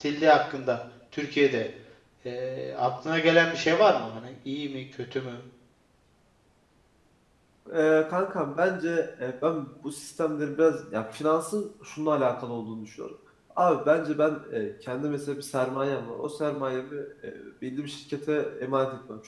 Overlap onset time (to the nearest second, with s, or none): none